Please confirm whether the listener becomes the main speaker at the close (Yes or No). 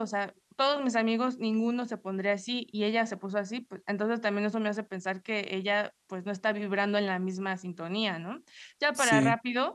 No